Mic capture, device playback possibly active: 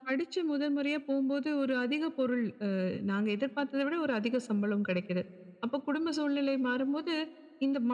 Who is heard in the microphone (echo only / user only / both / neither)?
echo only